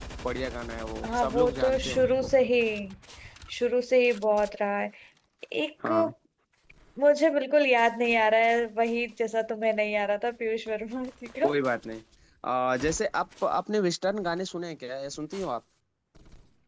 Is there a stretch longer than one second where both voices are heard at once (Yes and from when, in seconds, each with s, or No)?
Yes, from 1.0 s